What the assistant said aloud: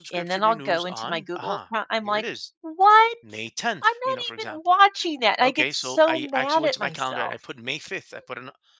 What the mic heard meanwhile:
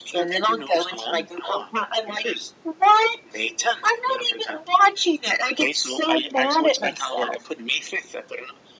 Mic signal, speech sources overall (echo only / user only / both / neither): echo only